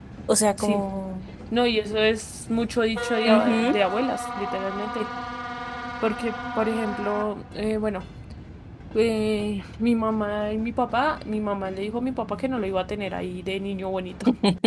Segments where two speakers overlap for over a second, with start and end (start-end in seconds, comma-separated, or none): none